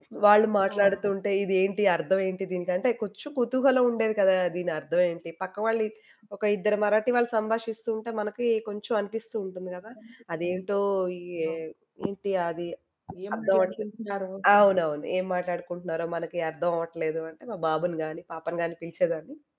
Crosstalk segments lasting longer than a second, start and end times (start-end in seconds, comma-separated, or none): none